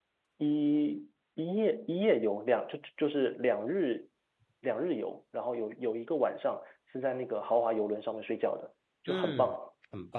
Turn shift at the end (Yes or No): Yes